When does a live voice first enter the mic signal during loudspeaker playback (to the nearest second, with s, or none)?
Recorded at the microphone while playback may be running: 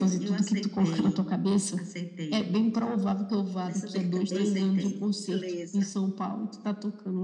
4 s